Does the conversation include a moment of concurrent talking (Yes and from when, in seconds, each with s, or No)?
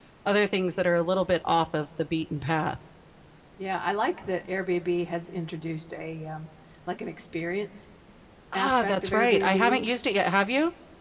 Yes, from 8.5 s